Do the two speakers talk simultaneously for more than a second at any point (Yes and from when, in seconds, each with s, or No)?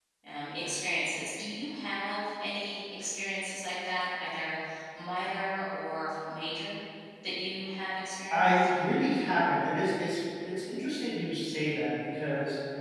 No